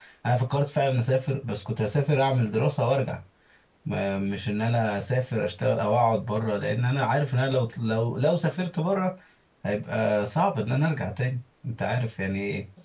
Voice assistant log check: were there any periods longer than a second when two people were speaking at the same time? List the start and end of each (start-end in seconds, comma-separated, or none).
none